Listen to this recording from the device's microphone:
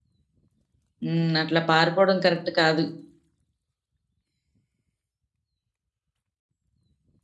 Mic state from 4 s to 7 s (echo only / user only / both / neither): neither